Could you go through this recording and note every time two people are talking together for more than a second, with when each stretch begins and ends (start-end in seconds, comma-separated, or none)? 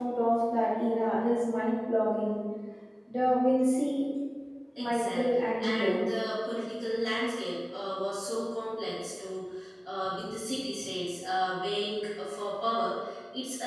4.8-6.0